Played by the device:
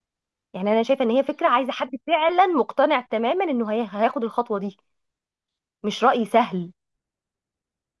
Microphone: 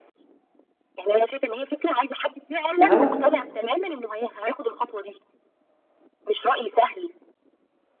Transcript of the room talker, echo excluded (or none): ما هو